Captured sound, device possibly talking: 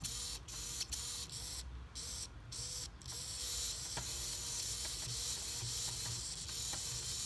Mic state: neither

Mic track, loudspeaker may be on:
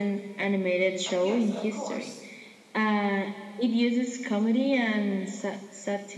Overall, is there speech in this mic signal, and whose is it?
both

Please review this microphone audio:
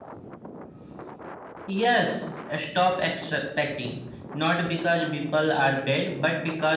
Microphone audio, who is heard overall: echo only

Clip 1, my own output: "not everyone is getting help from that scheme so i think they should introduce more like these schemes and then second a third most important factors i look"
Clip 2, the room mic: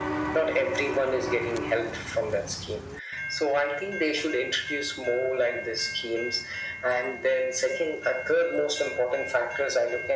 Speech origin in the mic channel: echo only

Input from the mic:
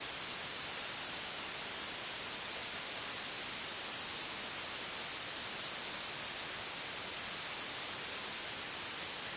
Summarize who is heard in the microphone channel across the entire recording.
neither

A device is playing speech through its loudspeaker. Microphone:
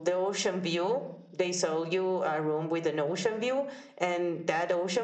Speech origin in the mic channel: echo only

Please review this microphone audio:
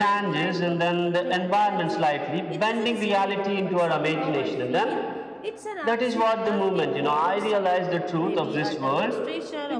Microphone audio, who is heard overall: both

